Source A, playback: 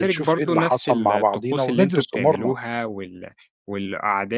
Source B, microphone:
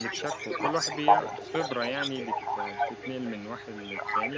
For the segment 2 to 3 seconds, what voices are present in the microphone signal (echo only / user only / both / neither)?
both